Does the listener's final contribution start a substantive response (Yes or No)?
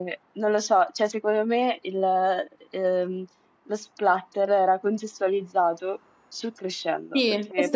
Yes